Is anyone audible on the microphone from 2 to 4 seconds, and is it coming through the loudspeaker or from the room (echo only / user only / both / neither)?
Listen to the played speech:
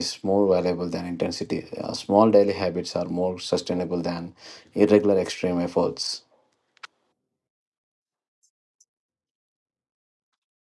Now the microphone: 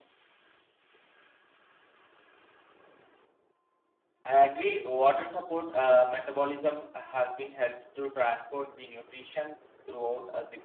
neither